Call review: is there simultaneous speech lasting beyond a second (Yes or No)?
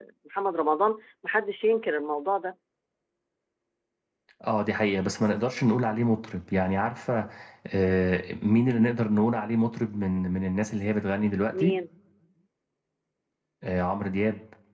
No